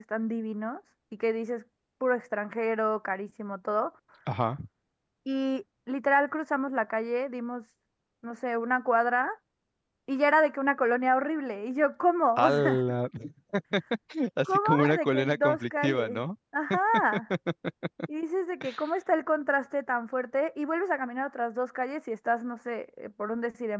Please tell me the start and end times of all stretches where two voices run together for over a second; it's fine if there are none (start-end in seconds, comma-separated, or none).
14.4-16.2